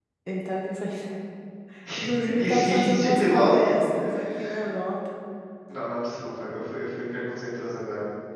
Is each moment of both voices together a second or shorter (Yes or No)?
No